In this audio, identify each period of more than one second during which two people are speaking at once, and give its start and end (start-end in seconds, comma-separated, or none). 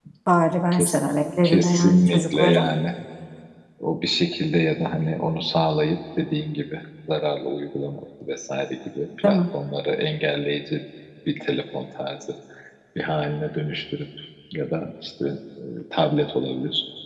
1.4-2.7